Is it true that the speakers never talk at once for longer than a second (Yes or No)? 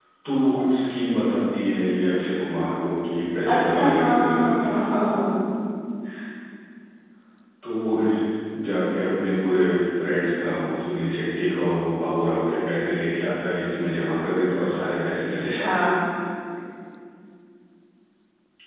No